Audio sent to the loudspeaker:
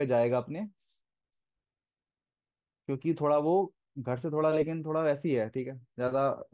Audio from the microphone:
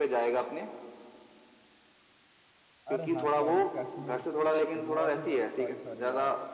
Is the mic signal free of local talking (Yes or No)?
No